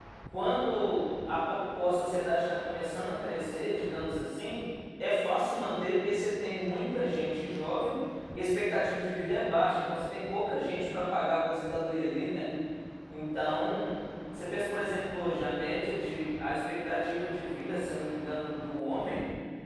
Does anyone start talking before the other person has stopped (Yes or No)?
No